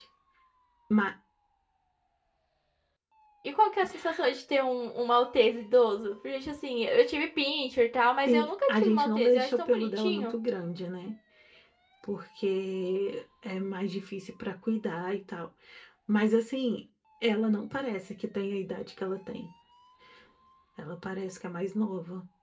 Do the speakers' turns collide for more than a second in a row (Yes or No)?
Yes